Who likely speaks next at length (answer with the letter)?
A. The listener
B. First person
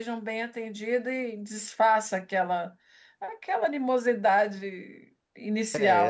A